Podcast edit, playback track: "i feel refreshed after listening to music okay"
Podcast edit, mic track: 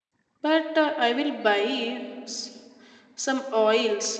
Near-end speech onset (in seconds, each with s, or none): 0.4 s